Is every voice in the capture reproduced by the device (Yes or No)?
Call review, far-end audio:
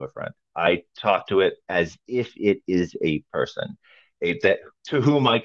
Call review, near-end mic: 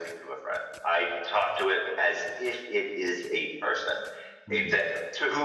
No